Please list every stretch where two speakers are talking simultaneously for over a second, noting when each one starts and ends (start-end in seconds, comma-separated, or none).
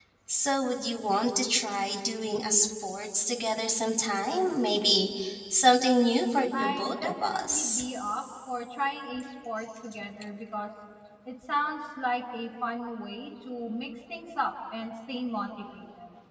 6.6-7.8